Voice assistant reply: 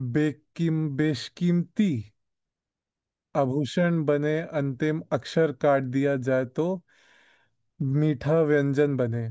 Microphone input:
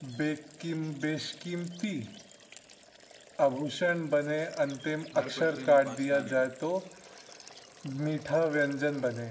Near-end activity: present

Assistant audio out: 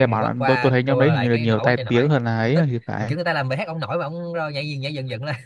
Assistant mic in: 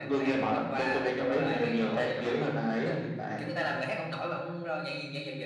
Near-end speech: none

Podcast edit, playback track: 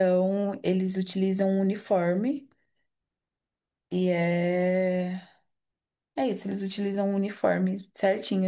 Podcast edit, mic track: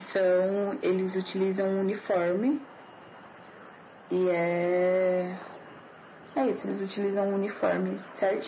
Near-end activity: none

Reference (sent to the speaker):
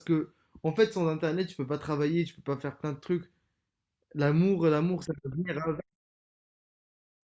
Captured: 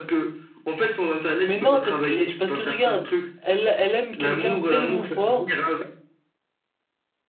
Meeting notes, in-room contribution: present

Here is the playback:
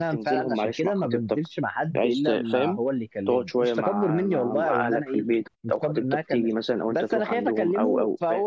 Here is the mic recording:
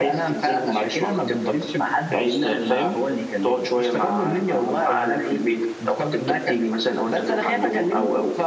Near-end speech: none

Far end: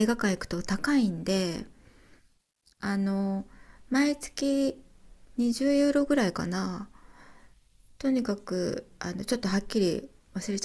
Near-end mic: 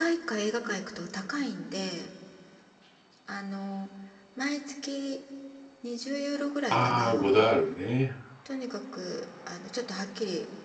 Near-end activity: present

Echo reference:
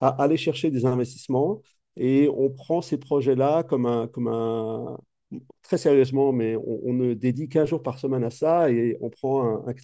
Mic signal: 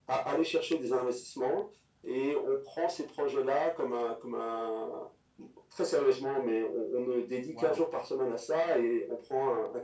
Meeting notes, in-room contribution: present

